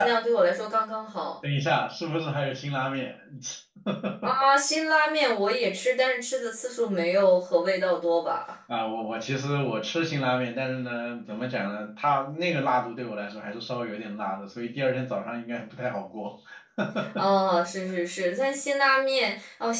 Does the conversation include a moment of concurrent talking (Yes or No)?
No